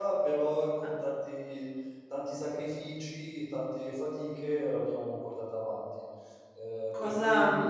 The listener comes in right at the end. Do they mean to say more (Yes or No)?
Yes